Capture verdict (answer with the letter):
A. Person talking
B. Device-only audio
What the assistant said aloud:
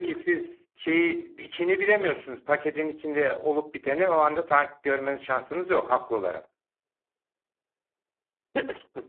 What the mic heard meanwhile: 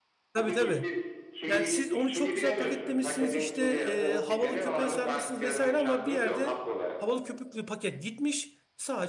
A